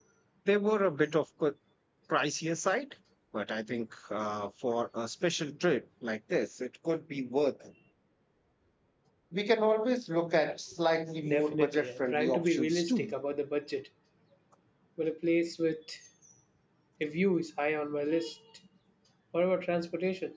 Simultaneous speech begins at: 11 s

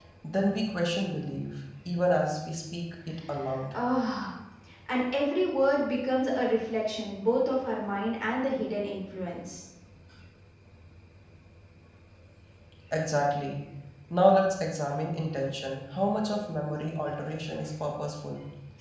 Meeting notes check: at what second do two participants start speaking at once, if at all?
none

